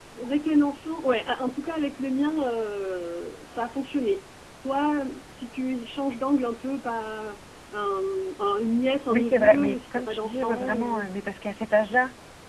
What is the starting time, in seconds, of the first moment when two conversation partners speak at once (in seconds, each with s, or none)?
9.1 s